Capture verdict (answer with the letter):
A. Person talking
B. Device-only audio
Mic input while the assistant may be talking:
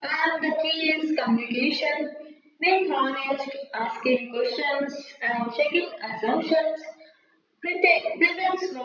B